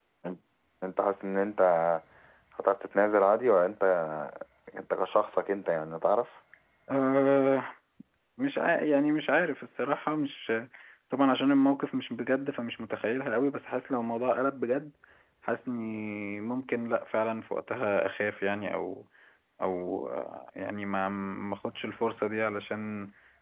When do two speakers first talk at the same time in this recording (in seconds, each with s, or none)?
none